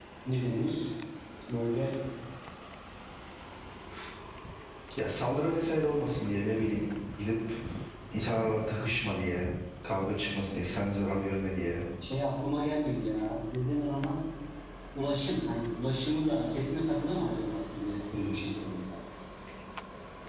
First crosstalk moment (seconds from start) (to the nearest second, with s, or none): none